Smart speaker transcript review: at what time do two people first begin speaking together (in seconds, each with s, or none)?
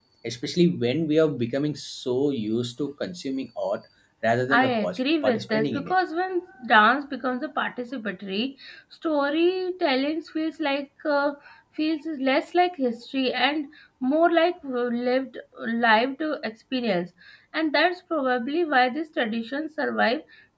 4.5 s